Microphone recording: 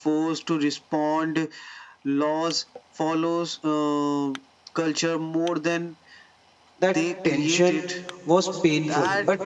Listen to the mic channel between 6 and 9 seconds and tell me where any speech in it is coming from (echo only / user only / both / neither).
both